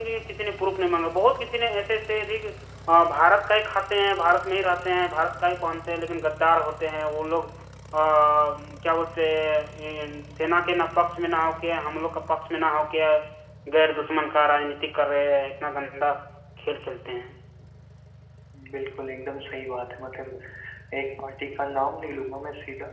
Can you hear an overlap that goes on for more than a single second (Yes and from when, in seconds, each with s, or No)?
No